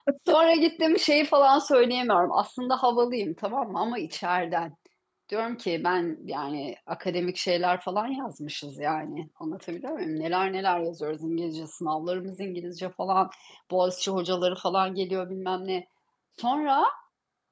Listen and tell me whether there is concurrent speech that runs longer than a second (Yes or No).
No